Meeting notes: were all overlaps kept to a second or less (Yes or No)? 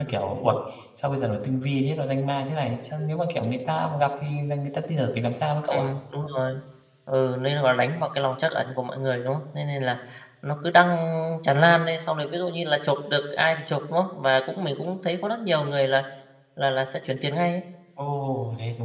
Yes